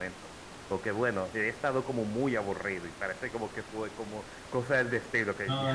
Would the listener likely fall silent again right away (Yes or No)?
No